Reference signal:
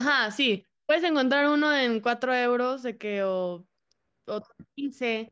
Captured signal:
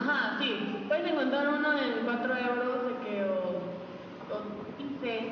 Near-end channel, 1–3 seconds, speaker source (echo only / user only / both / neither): echo only